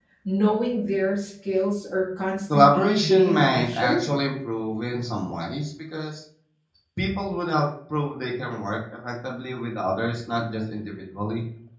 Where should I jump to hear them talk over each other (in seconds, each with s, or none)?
2.5 s